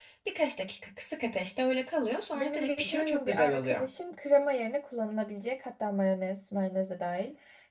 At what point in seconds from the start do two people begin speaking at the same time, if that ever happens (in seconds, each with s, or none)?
2.3 s